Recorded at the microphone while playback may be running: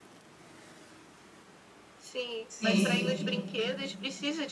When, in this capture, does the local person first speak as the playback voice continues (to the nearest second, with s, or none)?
2 s